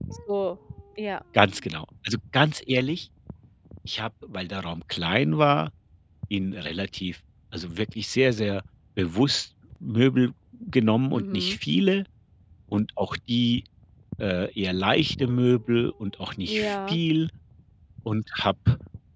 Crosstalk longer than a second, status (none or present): none